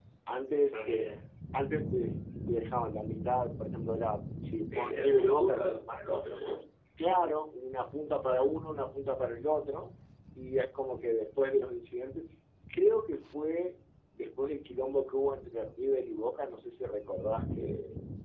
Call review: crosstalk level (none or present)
present